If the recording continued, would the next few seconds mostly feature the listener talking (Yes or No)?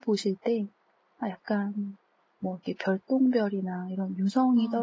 No